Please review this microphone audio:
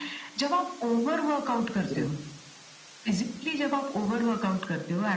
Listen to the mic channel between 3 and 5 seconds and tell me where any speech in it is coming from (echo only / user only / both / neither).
echo only